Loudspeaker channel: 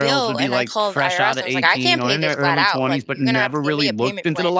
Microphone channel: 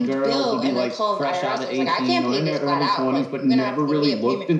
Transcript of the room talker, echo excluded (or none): none